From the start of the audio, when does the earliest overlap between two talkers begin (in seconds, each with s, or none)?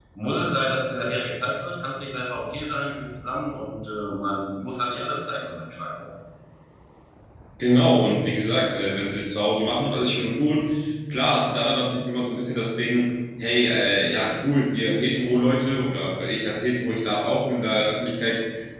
none